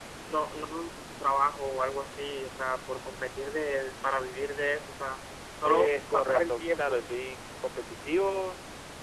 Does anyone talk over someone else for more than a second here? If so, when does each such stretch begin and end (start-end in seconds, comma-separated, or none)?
5.6-7.0